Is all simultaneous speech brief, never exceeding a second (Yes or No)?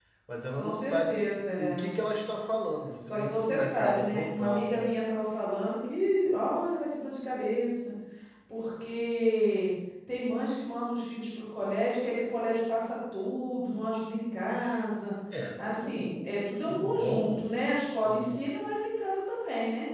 No